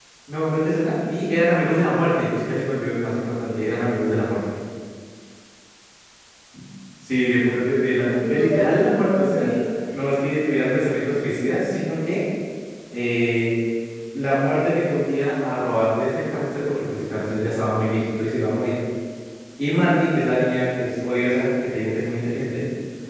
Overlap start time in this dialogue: 8 s

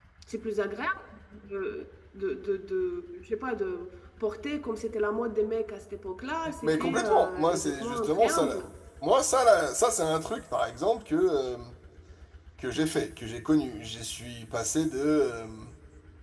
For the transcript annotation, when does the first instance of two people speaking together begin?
6 s

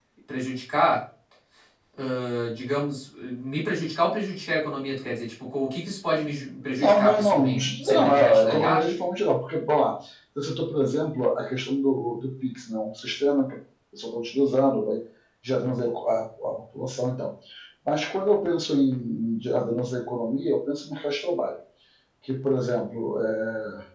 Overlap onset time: 7 s

